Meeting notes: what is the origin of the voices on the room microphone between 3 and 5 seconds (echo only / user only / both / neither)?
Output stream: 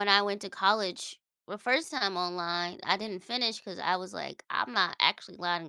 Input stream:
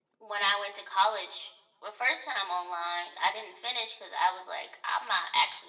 echo only